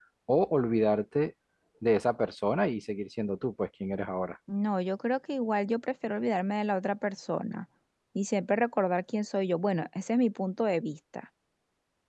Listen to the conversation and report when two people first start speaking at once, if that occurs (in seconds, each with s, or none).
none